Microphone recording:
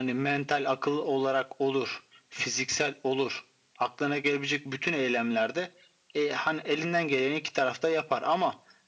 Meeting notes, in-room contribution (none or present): none